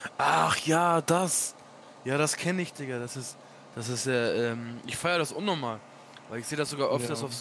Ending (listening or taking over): listening